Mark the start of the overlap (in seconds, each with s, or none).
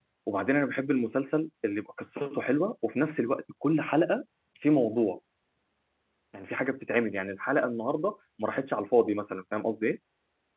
none